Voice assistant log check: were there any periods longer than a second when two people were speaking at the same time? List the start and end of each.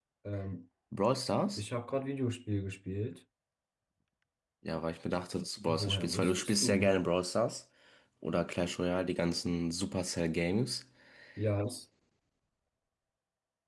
5.7-6.9

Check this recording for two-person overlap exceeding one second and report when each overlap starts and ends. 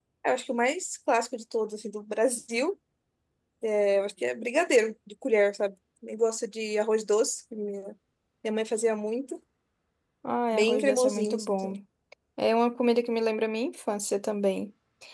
10.5-11.7

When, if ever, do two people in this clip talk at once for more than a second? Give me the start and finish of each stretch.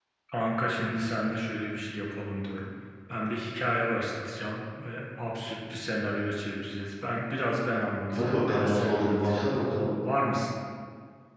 8.1-9.6

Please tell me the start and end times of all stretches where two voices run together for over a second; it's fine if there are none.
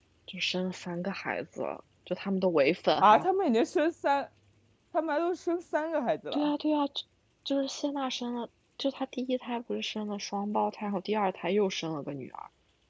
none

